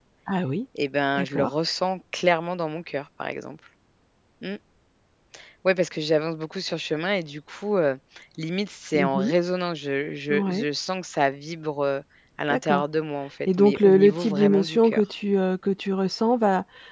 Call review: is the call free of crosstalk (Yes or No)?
No